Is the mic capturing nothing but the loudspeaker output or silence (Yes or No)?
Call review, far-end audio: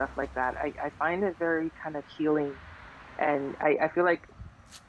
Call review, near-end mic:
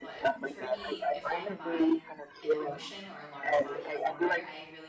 No